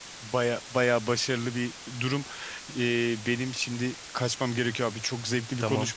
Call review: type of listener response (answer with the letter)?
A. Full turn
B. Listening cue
B